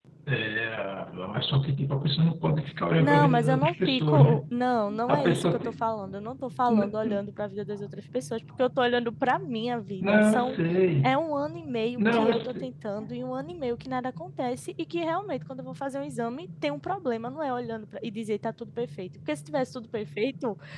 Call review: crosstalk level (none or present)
present